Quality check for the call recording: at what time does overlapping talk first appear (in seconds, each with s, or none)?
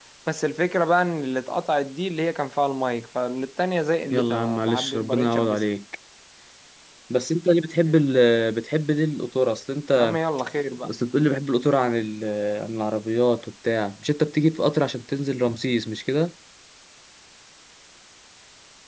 4.1 s